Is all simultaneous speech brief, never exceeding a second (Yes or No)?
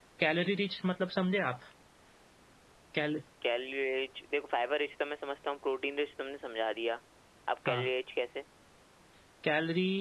Yes